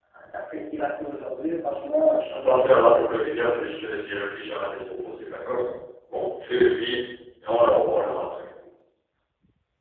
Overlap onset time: 2 s

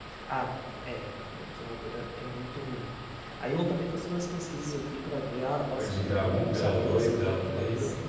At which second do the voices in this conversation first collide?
6 s

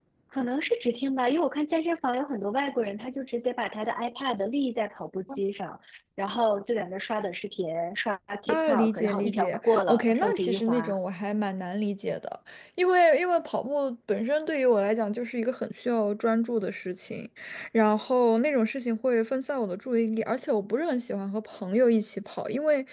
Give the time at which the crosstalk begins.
8 s

